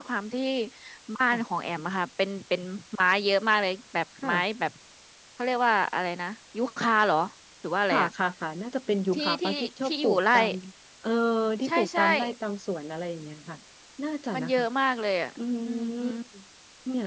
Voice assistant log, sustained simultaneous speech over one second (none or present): present